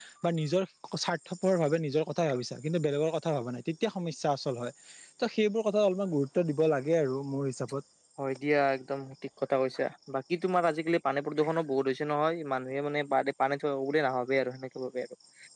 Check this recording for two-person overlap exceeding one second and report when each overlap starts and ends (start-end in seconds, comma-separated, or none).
none